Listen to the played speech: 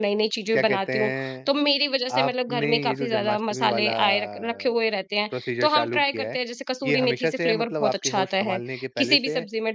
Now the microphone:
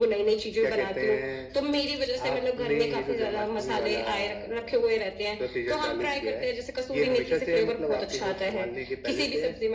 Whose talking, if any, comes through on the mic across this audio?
echo only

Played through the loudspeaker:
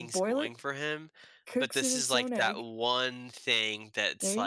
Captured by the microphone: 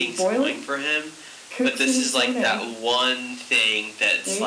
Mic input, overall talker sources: echo only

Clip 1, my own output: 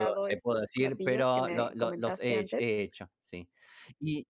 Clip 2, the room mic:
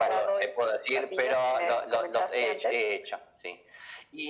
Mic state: echo only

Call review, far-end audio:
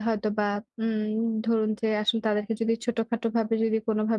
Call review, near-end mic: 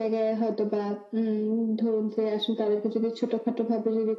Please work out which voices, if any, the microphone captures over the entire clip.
echo only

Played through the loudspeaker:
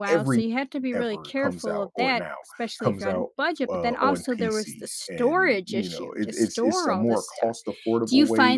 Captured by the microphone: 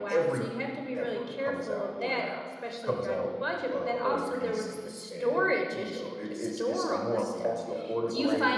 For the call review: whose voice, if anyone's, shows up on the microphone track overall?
both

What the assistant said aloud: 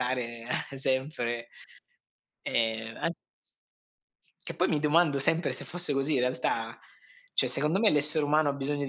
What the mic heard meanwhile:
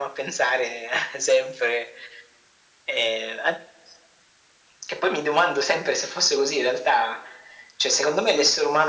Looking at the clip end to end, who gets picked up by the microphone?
echo only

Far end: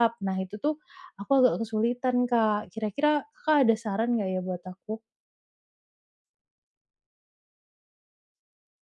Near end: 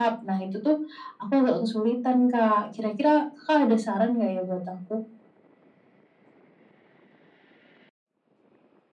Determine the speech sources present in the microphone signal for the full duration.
echo only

